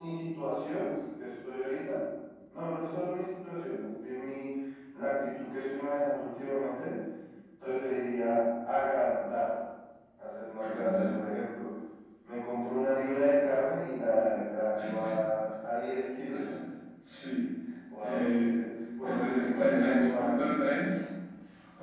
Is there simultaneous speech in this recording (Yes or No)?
Yes